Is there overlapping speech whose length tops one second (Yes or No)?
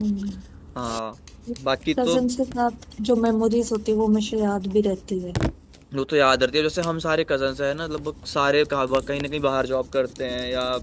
No